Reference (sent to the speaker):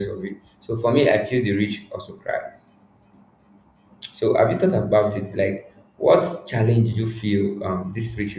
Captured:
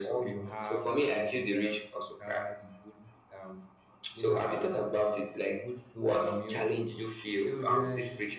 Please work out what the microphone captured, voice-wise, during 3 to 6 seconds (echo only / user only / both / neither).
both